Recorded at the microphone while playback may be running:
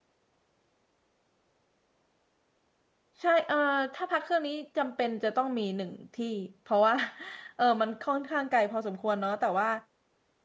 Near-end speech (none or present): present